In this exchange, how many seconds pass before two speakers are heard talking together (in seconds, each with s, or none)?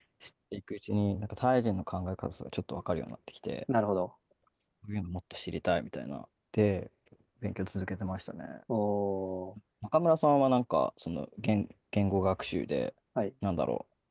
none